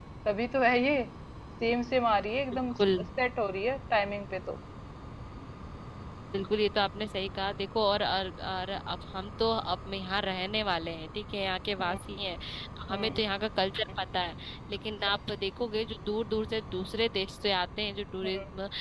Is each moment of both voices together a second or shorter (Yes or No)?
Yes